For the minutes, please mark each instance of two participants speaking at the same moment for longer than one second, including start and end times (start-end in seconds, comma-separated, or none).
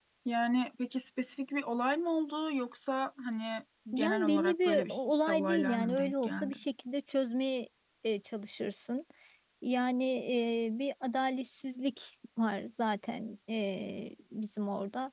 3.9-6.6